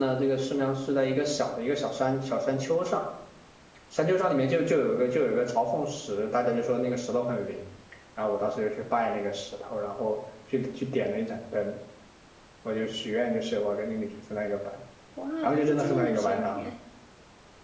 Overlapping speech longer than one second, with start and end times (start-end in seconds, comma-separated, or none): 15.4-16.6